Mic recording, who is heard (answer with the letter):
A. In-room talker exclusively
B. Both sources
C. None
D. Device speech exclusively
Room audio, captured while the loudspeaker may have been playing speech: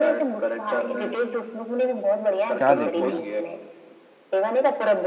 B